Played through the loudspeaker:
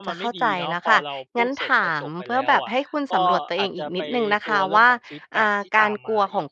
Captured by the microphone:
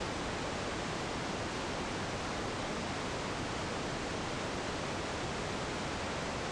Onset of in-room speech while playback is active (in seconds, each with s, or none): none